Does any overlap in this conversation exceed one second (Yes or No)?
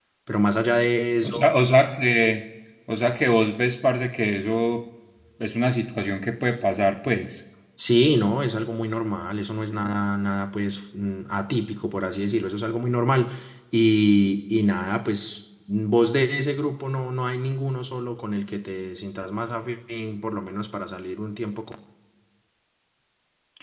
No